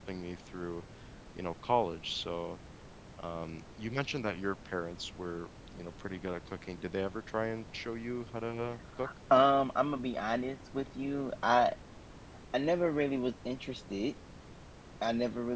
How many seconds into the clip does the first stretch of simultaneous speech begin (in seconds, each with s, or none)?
none